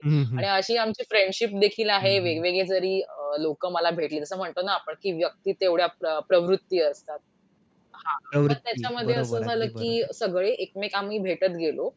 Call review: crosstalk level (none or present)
present